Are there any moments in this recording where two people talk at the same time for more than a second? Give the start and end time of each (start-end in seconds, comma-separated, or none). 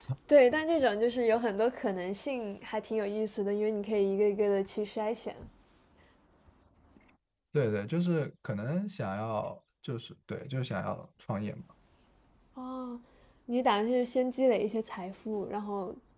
none